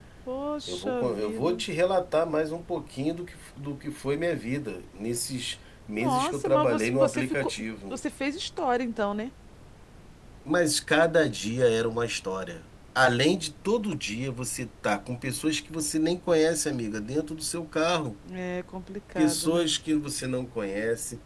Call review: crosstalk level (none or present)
present